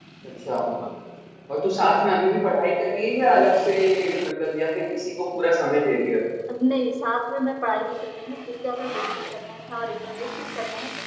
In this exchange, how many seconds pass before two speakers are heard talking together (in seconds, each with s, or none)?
none